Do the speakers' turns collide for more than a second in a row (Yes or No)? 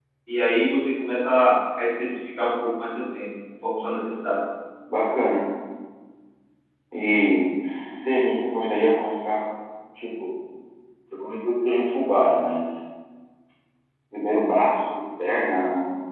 No